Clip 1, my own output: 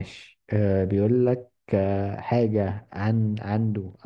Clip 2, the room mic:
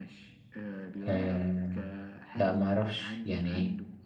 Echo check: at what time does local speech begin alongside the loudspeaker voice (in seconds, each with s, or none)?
1.1 s